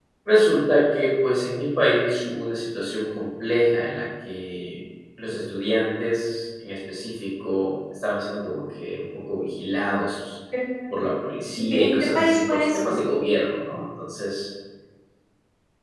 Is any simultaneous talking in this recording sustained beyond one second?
Yes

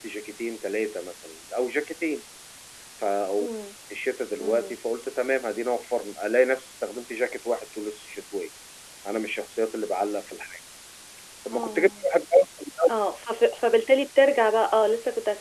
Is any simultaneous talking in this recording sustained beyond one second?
No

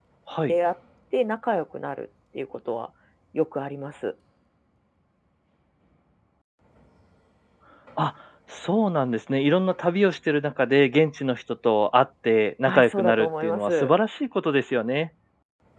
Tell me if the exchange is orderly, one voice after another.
No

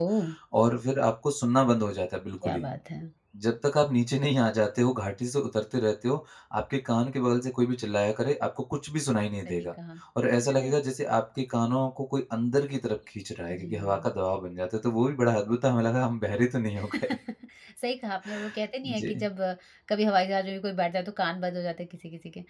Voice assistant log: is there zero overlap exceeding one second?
Yes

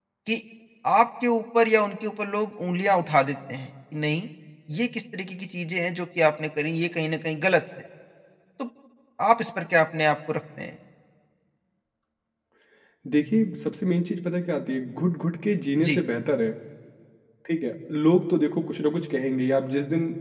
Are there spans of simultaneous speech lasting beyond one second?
No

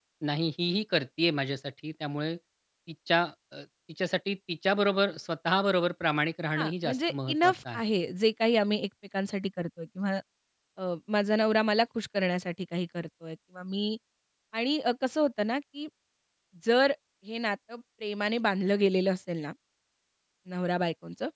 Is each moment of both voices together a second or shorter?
No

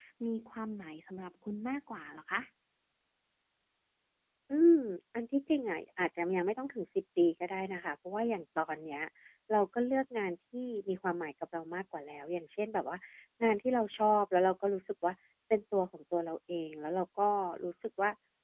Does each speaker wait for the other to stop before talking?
Yes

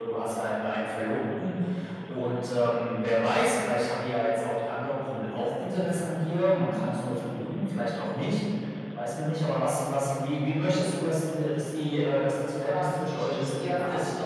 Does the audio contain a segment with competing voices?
Yes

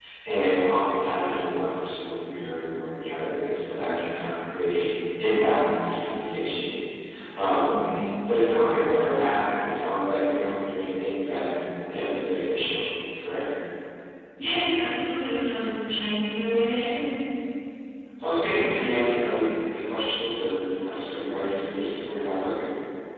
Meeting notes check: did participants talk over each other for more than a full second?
No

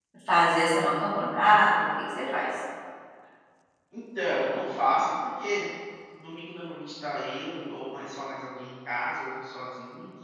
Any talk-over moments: No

